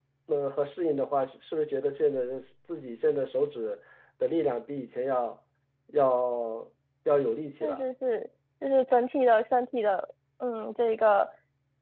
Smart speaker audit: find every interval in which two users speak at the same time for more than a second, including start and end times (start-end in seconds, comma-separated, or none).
none